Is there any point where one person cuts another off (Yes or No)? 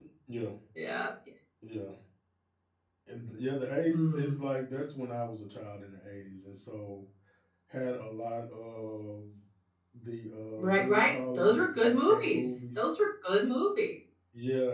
Yes